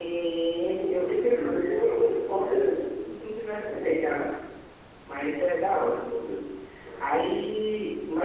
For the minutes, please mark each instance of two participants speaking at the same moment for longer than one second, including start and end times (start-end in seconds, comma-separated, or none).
0.8-2.8